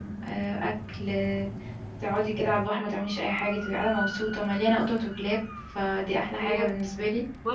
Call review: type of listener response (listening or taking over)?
taking over